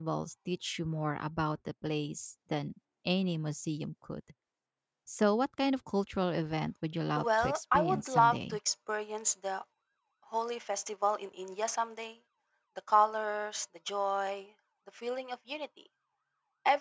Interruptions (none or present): present